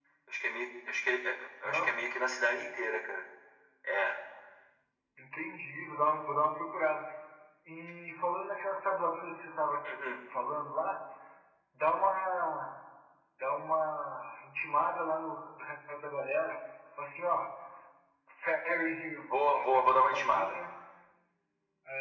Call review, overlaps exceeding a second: present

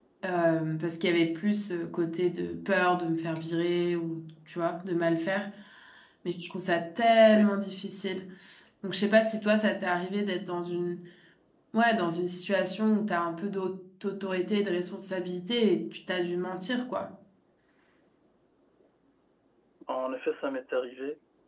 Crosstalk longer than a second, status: none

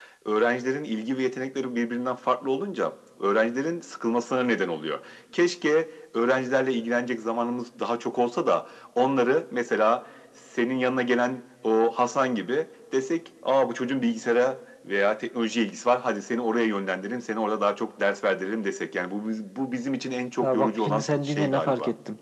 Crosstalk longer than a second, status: present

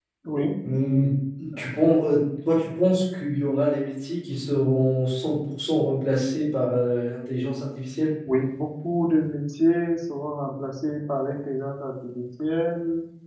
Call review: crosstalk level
none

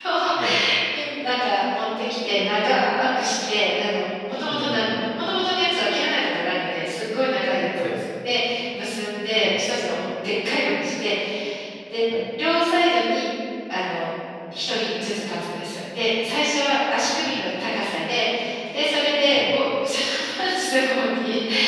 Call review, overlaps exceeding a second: none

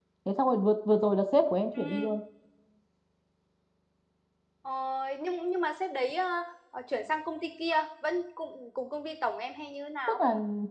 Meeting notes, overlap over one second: none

